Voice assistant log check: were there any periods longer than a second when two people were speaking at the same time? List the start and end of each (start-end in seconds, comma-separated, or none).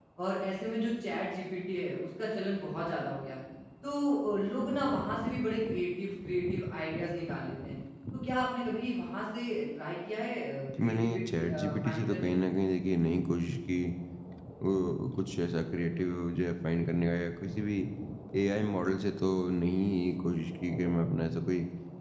10.8-12.4